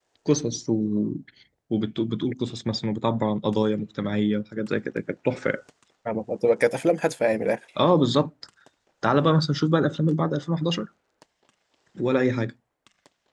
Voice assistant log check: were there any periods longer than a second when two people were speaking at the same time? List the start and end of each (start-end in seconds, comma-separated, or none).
none